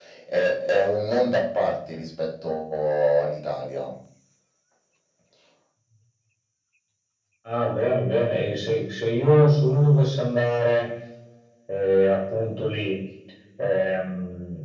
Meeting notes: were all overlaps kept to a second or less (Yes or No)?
Yes